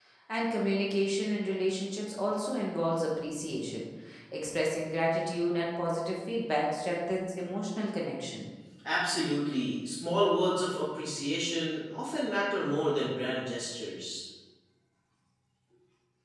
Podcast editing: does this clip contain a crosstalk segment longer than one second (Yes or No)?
No